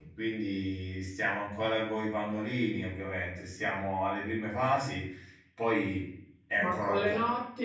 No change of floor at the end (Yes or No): No